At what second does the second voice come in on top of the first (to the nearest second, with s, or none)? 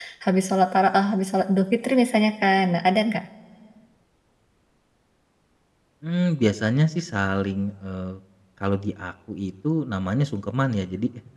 none